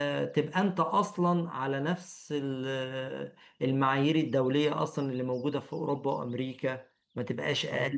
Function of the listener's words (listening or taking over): taking over